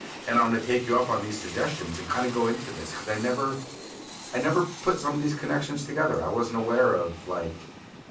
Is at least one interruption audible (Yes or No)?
No